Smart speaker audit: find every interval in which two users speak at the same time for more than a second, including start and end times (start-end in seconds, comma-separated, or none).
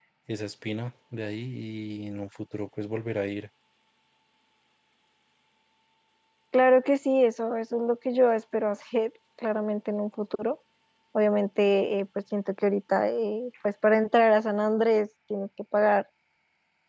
none